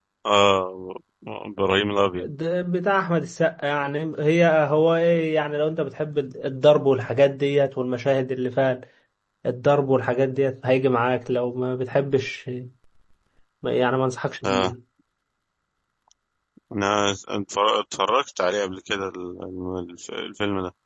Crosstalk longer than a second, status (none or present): none